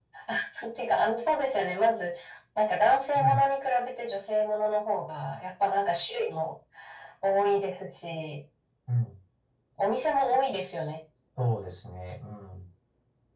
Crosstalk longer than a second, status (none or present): none